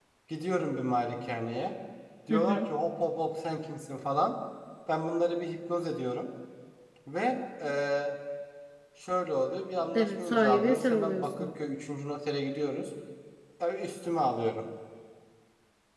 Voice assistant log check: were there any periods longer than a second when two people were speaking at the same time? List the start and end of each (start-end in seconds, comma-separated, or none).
9.9-11.5